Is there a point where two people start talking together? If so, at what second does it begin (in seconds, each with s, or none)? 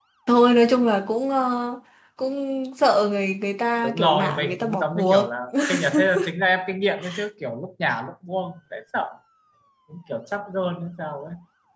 3.8 s